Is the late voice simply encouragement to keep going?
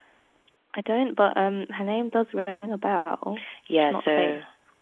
No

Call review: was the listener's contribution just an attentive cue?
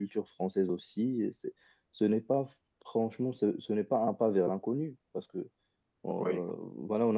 Yes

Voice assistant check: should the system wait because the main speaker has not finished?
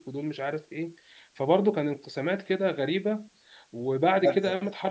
Yes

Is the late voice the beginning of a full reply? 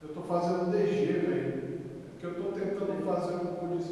No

